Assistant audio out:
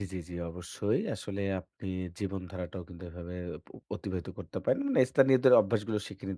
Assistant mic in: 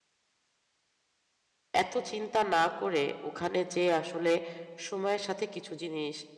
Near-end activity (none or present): present